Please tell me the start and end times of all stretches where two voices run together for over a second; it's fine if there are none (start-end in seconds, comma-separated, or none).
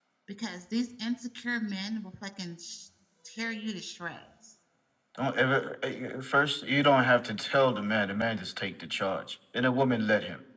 none